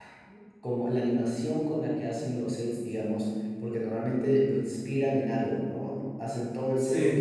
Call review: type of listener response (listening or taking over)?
listening